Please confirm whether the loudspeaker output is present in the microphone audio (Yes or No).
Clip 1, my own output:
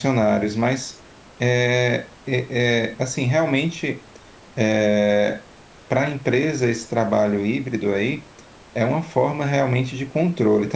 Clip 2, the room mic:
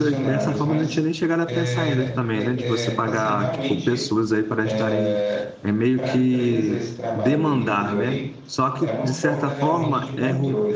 Yes